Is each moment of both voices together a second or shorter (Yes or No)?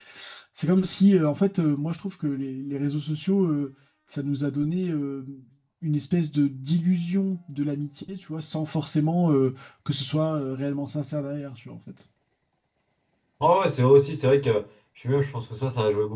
Yes